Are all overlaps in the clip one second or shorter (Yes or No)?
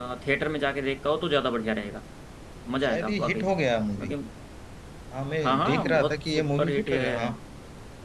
No